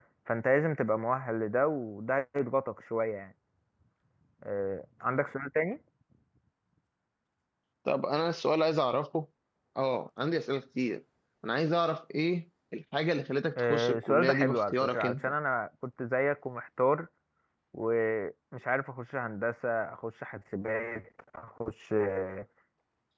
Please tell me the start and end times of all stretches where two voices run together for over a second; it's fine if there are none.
13.6-15.3

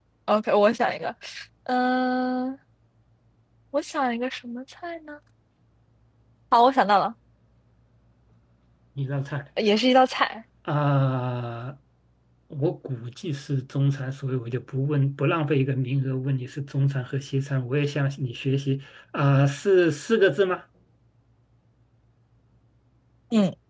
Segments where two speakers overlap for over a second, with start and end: none

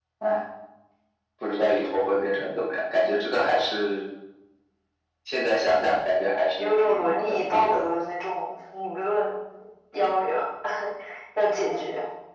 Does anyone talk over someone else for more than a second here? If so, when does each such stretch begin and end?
6.6-7.8

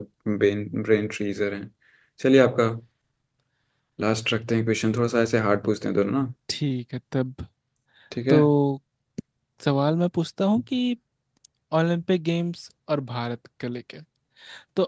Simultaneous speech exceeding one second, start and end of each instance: none

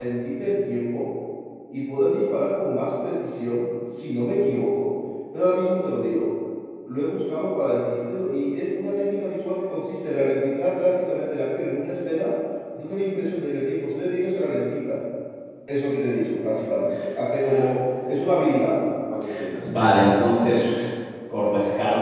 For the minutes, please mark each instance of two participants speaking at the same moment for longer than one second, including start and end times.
none

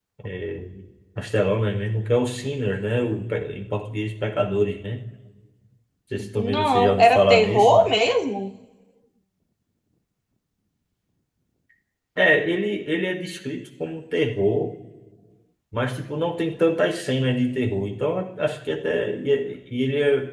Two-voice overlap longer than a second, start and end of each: 6.3-7.9

